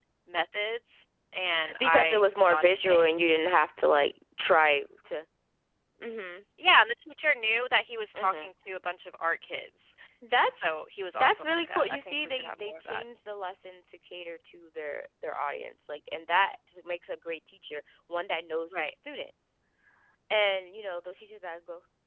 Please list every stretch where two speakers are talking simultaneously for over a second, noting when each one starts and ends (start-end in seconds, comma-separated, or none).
1.8-3.1, 11.1-13.1